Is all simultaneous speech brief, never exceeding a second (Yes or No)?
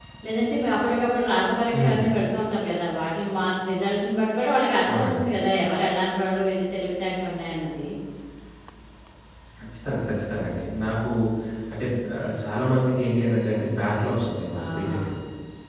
Yes